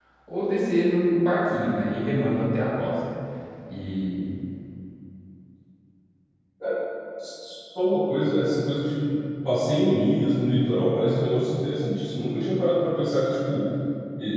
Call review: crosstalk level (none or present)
none